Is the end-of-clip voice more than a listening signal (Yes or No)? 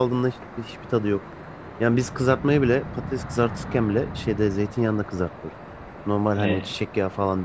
No